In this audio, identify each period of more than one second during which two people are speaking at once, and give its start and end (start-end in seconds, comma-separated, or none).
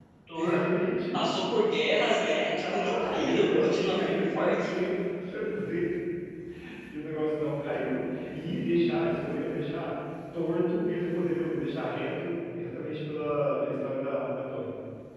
2.4-4.7